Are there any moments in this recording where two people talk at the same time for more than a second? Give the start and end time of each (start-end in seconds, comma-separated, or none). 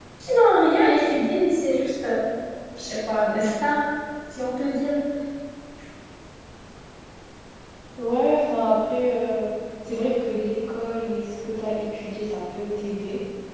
none